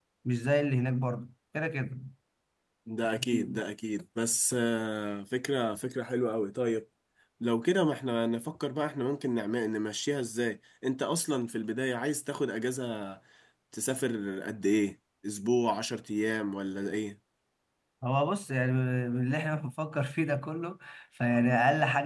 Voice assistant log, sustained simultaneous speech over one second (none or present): none